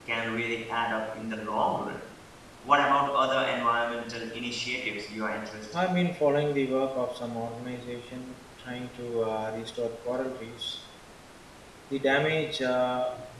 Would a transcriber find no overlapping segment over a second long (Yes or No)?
Yes